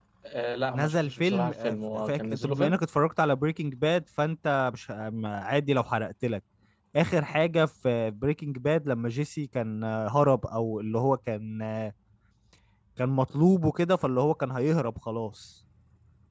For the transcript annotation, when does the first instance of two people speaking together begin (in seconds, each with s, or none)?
0.7 s